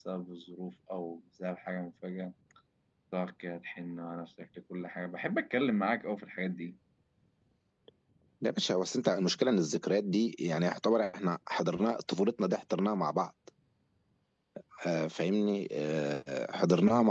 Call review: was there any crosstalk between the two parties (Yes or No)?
No